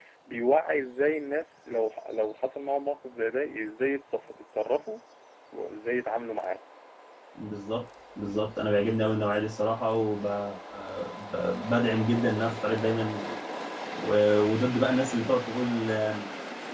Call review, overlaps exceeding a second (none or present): none